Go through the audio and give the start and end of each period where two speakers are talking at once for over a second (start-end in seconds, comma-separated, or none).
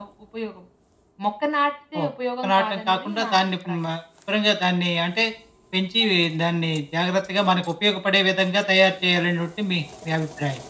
2.5-3.8